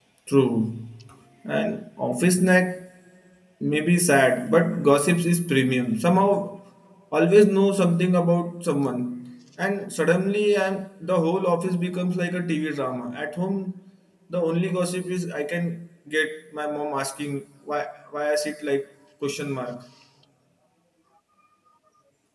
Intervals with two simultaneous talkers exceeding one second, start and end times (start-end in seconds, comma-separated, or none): none